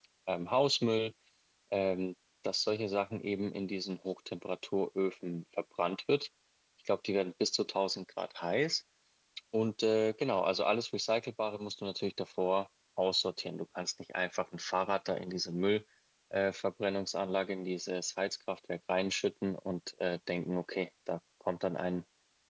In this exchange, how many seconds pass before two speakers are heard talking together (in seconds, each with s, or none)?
none